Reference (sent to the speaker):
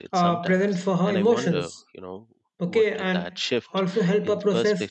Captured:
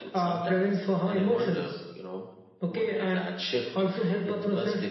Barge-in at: none

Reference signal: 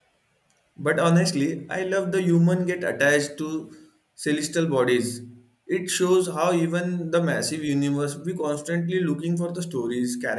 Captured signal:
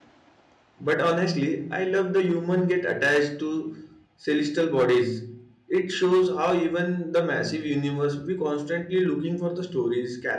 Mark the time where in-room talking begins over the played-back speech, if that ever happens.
none

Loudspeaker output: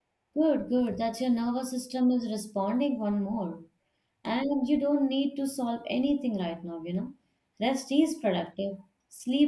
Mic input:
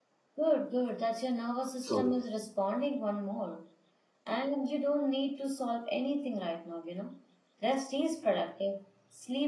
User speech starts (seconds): 1.8 s

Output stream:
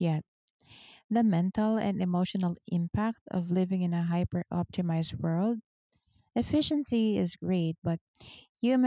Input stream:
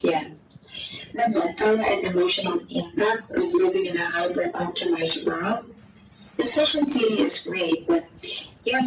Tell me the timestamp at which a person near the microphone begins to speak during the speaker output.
none

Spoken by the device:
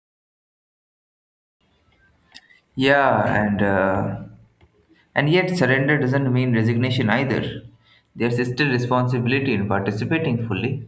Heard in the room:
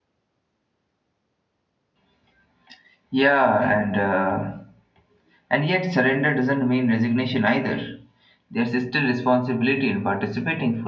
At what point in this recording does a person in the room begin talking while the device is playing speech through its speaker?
none

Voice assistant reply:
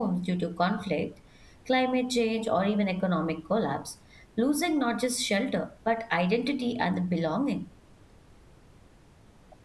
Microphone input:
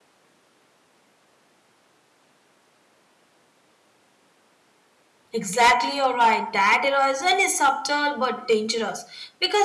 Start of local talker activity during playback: 5.3 s

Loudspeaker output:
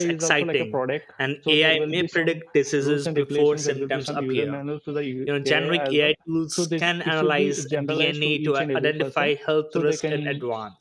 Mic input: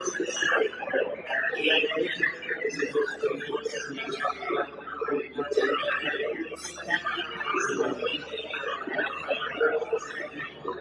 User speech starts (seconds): 7.6 s

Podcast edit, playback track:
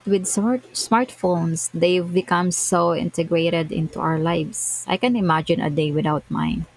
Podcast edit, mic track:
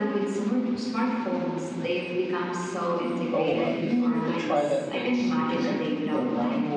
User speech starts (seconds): 3.3 s

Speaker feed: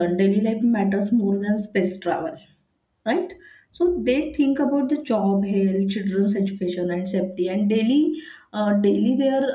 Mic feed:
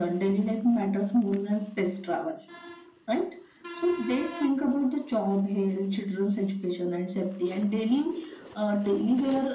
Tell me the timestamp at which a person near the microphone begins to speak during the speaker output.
none

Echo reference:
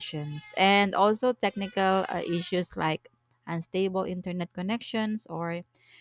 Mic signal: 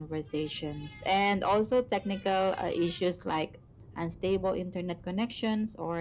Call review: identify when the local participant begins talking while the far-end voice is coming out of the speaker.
none

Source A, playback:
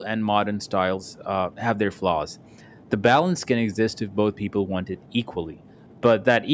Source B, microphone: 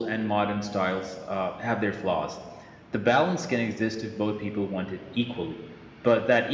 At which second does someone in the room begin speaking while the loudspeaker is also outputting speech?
none

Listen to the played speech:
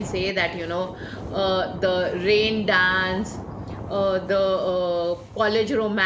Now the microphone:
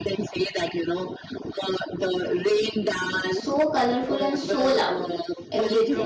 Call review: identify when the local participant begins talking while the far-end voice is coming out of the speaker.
3.3 s

